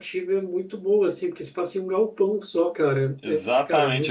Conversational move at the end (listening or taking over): taking over